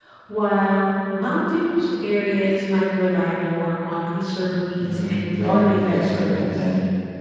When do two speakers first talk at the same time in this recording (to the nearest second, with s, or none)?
5 s